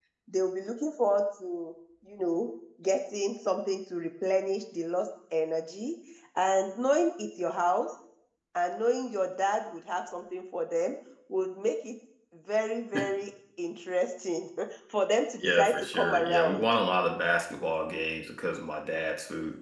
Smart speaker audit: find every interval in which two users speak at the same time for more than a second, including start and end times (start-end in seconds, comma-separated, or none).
15.4-16.6